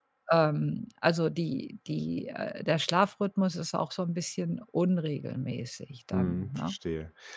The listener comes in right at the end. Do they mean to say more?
Yes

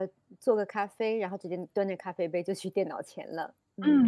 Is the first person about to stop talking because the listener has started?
Yes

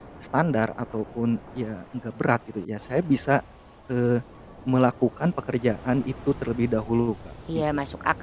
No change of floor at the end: No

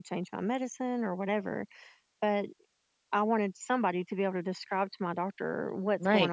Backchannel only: No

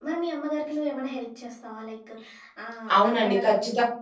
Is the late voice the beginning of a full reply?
Yes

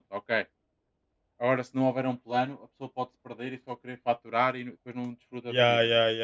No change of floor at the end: No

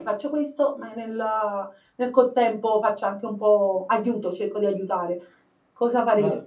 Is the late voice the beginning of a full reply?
Yes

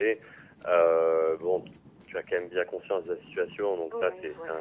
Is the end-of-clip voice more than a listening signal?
No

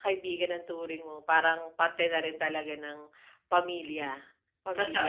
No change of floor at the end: No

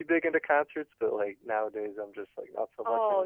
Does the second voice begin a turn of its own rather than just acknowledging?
Yes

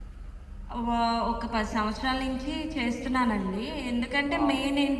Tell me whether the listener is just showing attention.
Yes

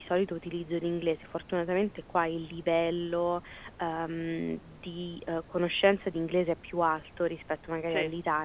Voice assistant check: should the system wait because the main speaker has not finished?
Yes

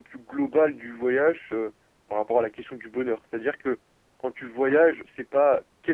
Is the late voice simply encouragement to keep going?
Yes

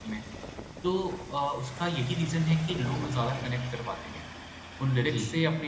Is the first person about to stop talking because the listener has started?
No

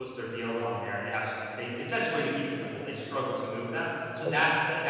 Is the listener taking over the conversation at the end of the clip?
No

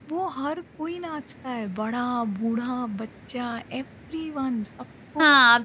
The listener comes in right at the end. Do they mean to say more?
Yes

